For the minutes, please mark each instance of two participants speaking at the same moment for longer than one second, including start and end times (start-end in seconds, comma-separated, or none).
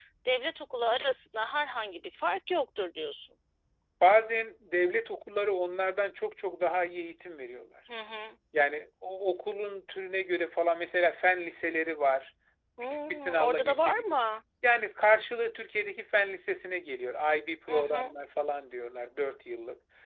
12.8-14.2